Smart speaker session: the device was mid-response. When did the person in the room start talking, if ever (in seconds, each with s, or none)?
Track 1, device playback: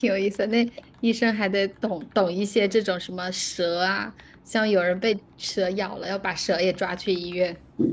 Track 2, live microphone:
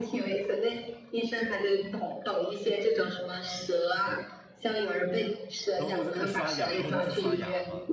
5.8 s